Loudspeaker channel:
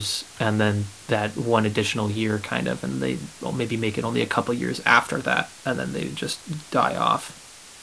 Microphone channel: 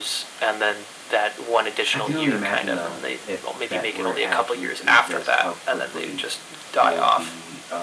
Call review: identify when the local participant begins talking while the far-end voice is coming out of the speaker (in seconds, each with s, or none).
1.9 s